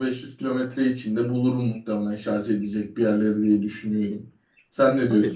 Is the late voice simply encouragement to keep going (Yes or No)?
No